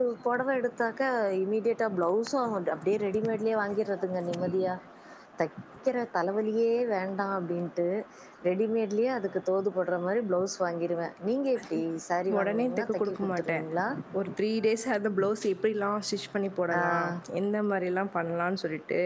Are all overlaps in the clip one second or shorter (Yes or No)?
No